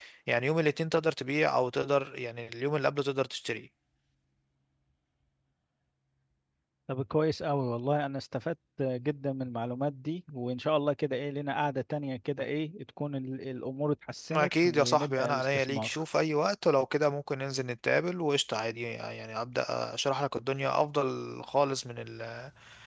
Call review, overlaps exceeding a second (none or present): present